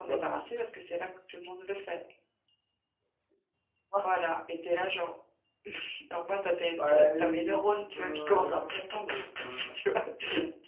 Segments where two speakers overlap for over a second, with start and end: 6.8-9.8

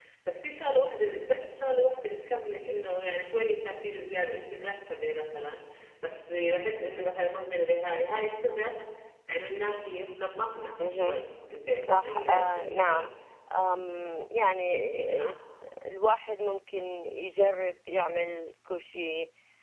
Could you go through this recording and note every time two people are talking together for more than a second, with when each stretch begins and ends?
11.8-13.1

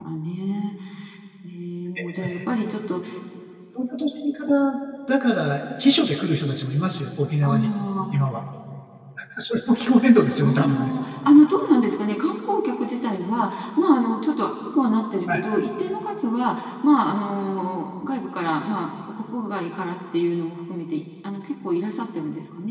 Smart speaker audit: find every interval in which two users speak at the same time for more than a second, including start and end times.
none

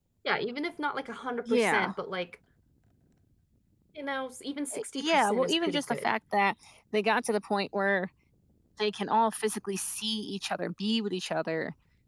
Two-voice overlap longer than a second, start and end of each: 4.7-6.0

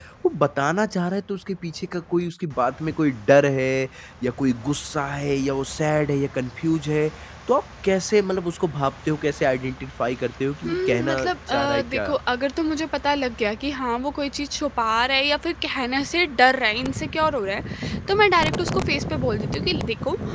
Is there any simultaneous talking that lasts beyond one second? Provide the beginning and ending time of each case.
10.7-12.1

